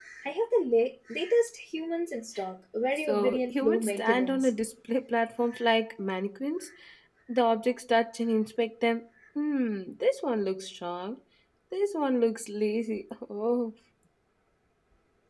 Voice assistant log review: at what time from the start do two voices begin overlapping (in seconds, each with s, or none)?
3.0 s